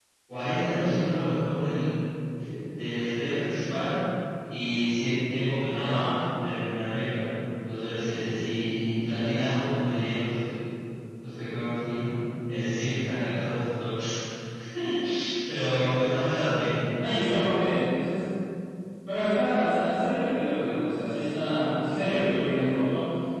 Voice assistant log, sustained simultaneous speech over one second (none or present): none